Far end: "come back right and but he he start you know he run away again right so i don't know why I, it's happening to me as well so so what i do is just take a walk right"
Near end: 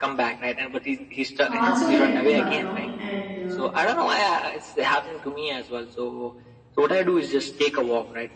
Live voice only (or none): also led to burnout and uh,